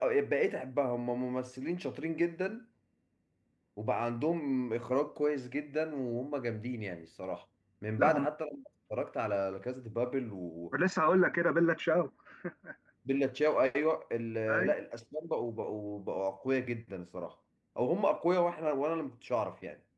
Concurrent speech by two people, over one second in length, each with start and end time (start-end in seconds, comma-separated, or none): none